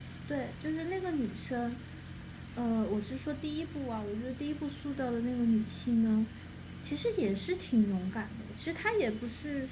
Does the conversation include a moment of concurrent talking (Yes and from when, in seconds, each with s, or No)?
No